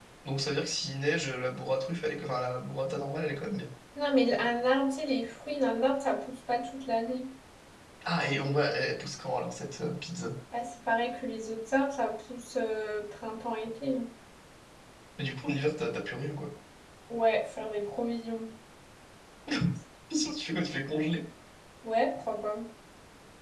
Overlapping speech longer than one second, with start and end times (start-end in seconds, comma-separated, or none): none